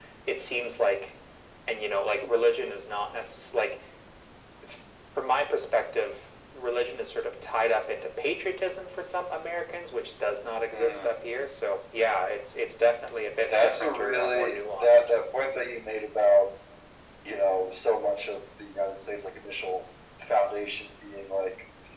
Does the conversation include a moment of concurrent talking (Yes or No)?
Yes